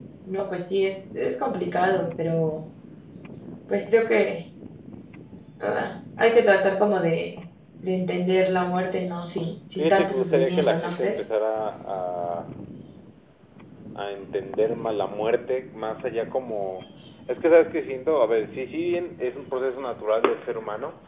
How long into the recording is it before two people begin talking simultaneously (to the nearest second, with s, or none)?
10 s